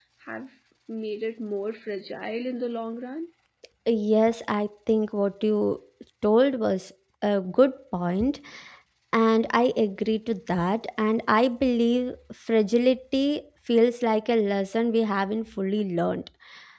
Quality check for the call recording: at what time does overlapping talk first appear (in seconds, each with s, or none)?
none